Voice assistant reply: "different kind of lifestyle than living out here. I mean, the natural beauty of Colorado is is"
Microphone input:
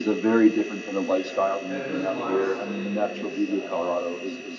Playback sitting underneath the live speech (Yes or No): No